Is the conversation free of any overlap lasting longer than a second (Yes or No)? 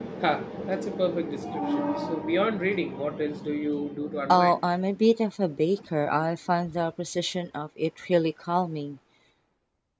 Yes